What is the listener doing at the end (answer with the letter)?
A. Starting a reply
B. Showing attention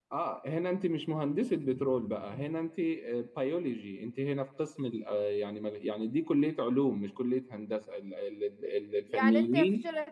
A